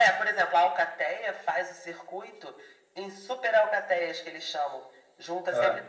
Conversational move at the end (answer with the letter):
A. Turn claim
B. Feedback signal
B